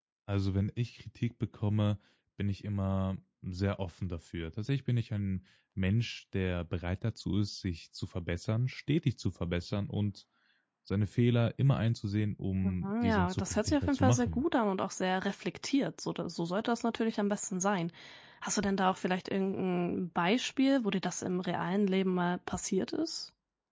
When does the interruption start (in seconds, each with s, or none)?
12.6 s